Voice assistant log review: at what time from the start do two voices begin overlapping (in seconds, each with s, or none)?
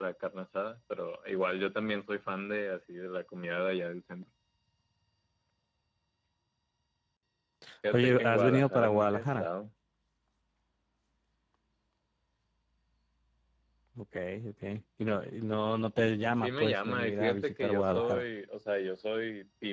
7.9 s